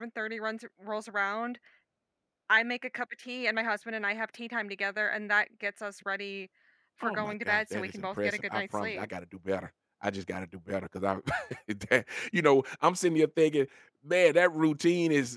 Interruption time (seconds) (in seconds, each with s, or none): 7.0 s